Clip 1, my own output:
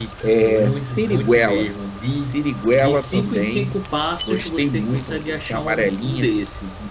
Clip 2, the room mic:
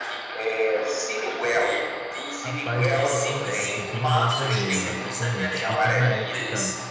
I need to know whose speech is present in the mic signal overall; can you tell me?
both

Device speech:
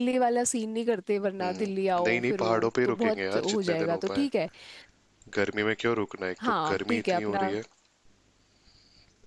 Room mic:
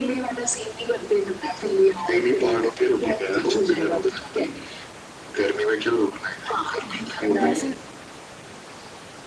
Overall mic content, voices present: both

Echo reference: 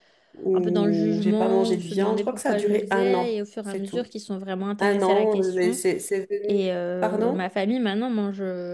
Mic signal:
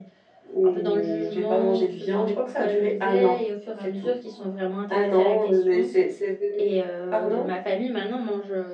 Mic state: echo only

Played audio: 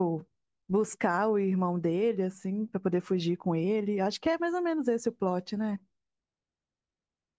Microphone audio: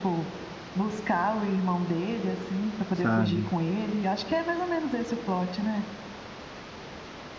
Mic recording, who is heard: both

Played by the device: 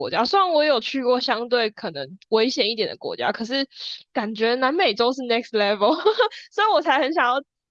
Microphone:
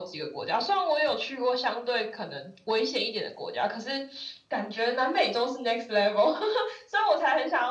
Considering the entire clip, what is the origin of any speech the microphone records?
echo only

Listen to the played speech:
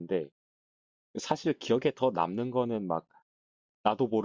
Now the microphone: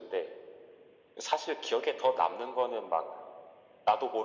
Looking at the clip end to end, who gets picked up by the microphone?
echo only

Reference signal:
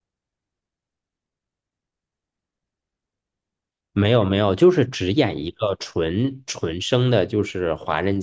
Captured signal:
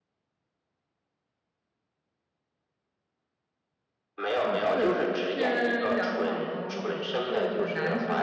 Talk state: both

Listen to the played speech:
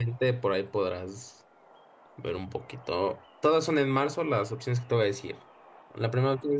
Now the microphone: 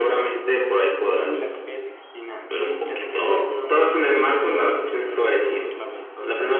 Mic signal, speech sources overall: both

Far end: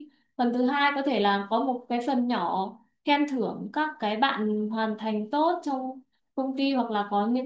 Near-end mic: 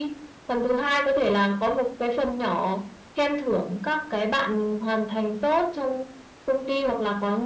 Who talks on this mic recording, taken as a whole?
echo only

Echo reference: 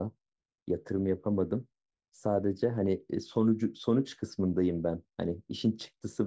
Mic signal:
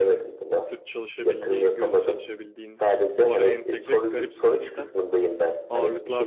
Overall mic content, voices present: both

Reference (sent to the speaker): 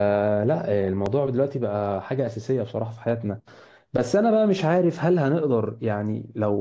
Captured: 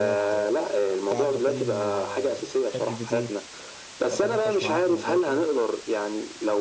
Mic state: both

